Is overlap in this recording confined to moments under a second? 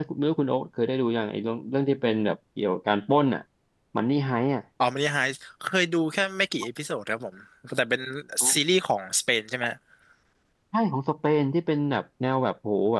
Yes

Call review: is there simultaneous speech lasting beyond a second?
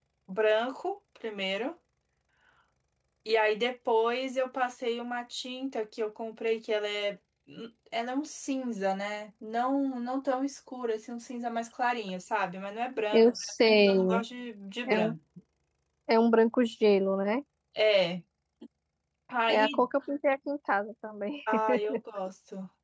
No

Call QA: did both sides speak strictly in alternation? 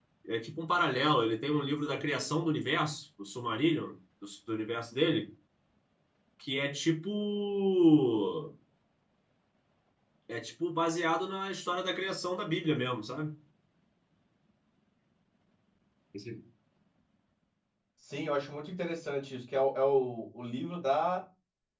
Yes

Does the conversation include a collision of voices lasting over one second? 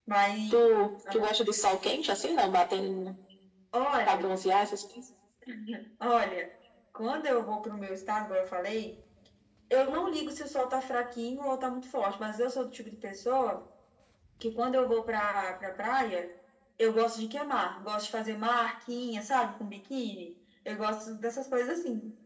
No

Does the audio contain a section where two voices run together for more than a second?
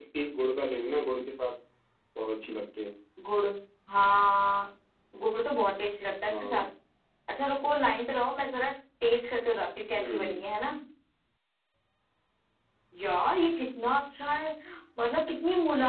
No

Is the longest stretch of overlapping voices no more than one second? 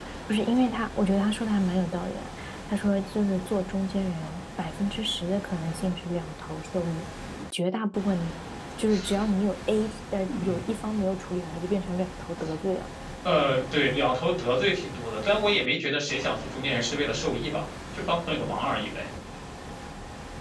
Yes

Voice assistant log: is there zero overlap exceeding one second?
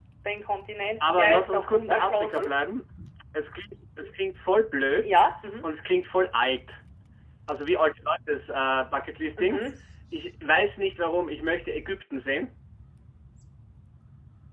No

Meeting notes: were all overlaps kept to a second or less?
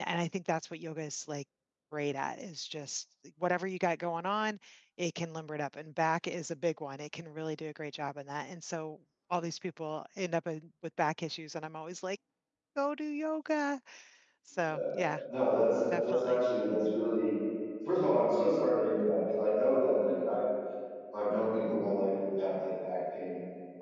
Yes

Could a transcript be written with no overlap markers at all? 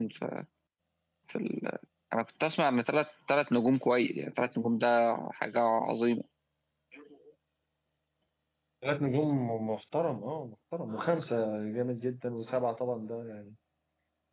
Yes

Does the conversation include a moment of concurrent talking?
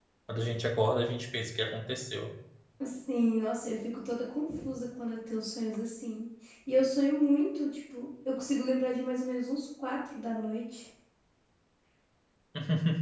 No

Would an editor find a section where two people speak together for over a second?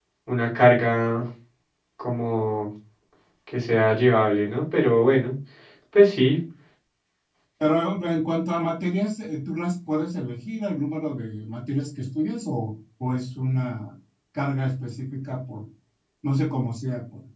No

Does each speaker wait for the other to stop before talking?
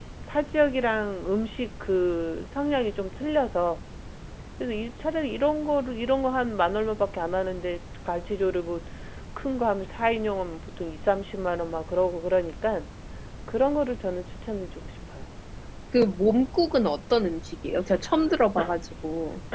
Yes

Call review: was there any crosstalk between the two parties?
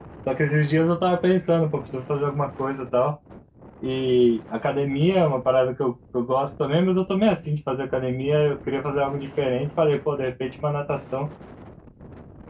No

